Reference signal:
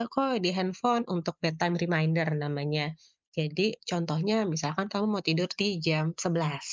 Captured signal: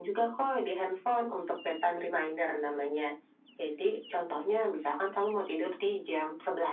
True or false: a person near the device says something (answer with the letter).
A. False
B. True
A